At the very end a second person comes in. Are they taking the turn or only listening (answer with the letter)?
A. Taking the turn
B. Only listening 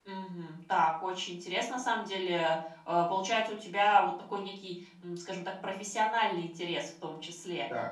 B